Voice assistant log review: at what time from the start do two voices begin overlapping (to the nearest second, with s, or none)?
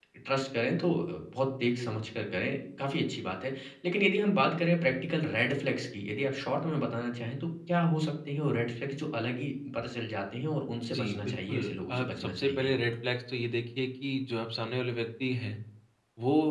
11 s